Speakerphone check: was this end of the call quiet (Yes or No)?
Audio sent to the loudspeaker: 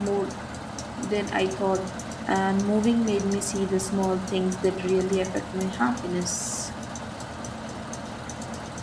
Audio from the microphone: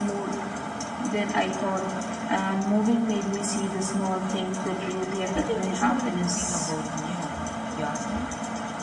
No